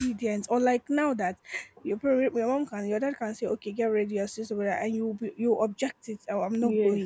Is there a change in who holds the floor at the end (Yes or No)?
No